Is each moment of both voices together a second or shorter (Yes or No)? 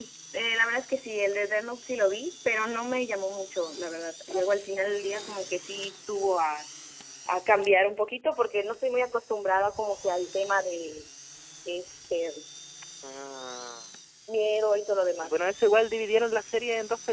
Yes